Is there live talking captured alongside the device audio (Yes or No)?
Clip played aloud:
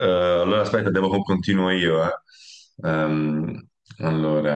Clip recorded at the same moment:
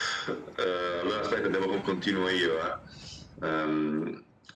No